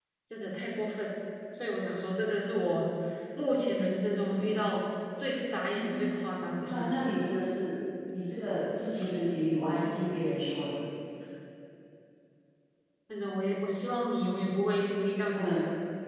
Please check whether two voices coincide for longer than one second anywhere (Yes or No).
No